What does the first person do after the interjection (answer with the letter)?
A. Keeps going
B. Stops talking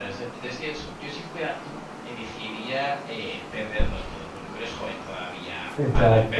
A